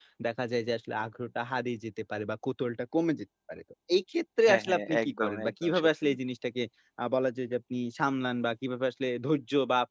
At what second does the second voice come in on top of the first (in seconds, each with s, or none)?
4.5 s